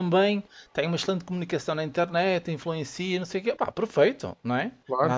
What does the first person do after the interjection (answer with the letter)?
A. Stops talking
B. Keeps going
B